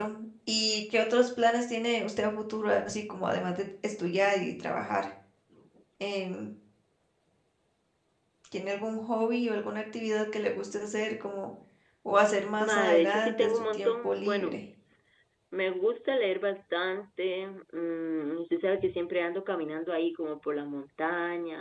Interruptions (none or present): present